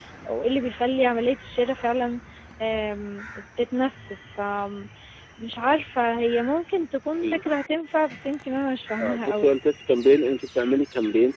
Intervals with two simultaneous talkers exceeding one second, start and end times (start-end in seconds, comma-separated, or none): none